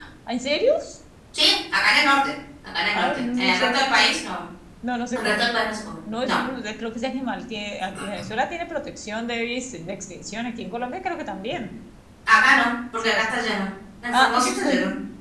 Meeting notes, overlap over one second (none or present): present